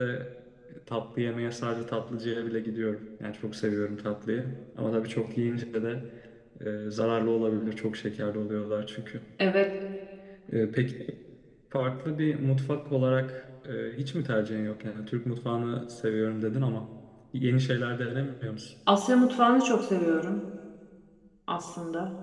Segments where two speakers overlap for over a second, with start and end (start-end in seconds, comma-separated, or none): none